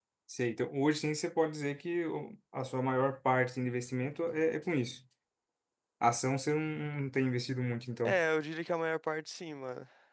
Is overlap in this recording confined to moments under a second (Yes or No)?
Yes